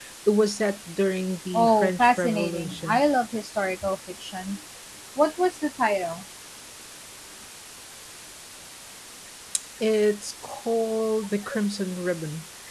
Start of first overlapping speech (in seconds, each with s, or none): 1.5 s